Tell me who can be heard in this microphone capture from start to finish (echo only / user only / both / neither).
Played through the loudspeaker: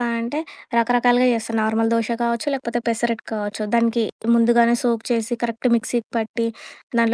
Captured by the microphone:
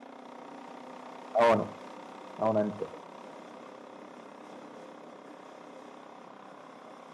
user only